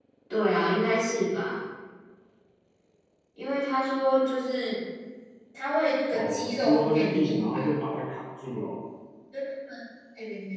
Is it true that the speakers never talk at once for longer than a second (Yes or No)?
No